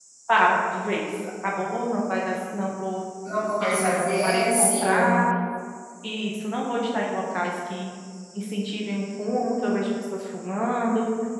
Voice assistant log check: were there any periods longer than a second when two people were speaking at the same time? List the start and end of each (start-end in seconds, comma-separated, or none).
3.6-5.2